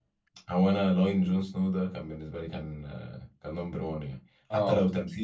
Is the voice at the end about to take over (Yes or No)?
No